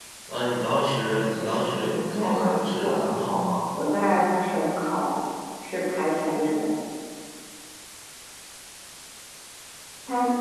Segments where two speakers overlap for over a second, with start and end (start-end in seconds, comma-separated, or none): 1.2-3.1